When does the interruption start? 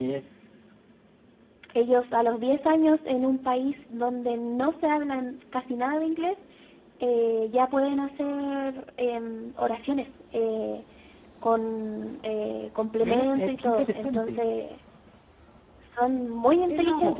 13.0 s

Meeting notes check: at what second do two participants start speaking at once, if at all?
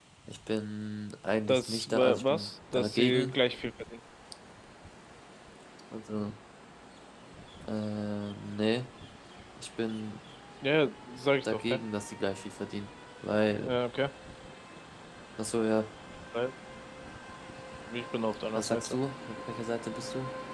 1.5 s

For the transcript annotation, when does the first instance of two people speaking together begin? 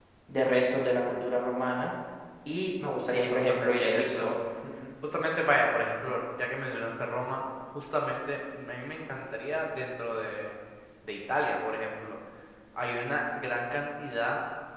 3.0 s

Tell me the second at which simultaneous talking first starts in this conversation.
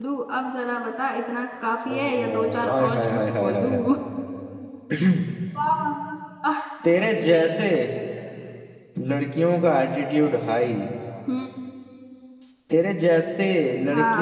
1.9 s

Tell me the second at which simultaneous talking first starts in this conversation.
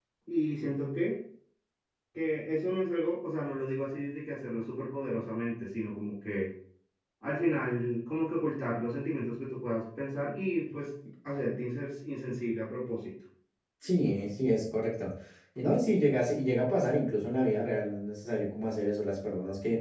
none

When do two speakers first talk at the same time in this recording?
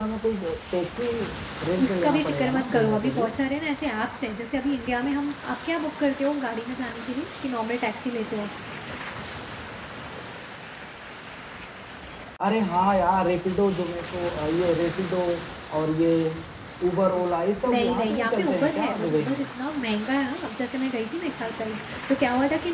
1.8 s

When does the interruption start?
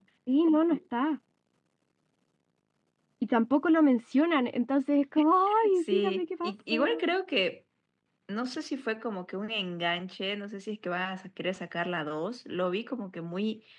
5.5 s

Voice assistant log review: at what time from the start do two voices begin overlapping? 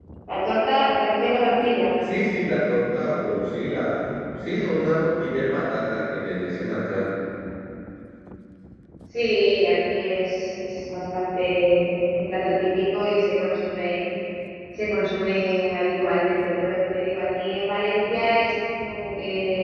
none

